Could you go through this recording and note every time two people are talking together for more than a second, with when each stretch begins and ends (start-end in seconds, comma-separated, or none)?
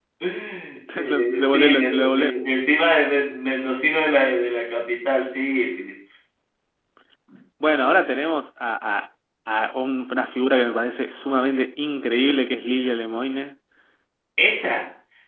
1.0-2.3